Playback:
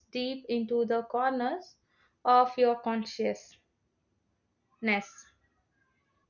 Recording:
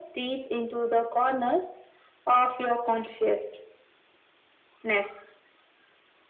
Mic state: echo only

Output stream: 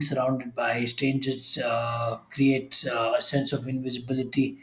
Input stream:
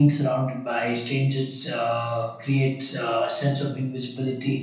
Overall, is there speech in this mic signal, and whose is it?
echo only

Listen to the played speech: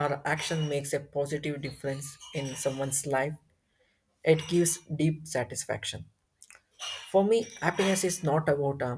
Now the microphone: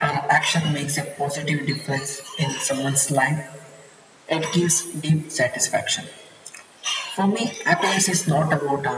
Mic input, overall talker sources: echo only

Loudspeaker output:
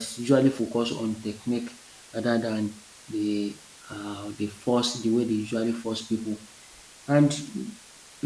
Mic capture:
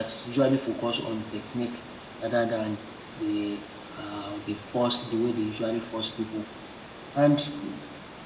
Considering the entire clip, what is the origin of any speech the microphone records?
echo only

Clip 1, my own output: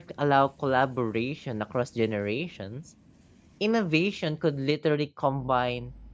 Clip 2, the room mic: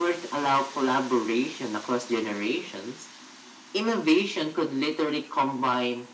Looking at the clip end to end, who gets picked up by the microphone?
echo only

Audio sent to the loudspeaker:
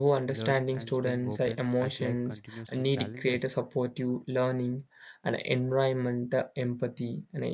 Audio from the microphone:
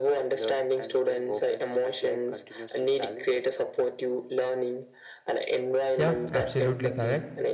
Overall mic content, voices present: both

